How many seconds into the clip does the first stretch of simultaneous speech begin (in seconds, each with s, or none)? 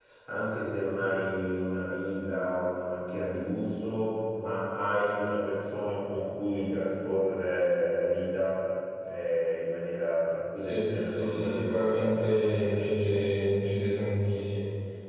10.7 s